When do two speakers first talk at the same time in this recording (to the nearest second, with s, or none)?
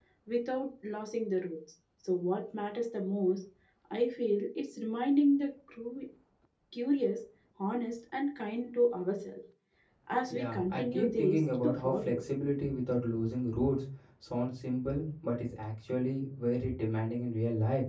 10 s